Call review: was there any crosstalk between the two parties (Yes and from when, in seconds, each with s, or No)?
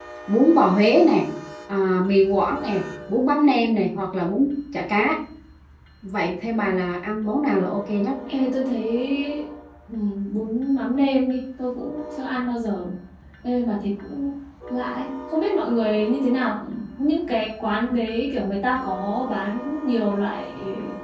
No